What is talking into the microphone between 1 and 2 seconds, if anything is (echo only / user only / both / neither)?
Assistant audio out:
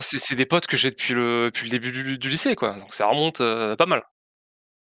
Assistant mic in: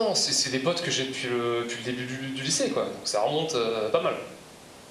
echo only